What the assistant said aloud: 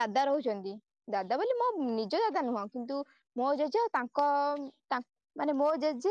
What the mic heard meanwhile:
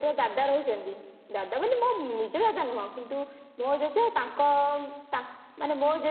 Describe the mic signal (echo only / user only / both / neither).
echo only